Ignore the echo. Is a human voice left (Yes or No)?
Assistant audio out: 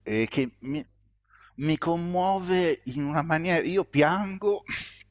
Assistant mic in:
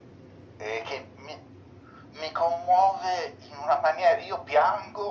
No